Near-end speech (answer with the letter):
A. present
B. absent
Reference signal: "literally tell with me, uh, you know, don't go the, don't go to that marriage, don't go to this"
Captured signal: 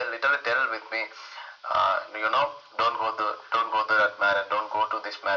B